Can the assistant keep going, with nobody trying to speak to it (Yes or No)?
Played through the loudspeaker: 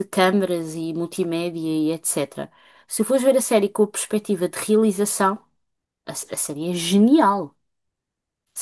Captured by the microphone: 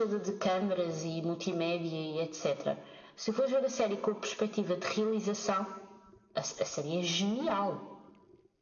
Yes